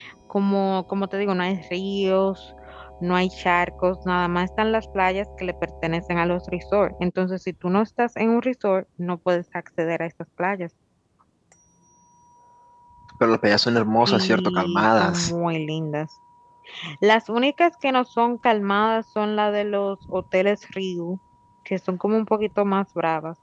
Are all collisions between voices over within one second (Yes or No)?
No